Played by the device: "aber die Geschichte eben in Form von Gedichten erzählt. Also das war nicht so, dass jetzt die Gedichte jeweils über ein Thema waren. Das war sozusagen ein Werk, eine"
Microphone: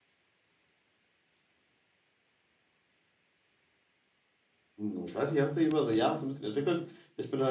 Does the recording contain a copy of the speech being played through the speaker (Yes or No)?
No